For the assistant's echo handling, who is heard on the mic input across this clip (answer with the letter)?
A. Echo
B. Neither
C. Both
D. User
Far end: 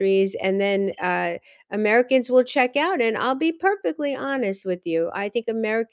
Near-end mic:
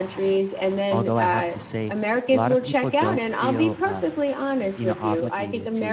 C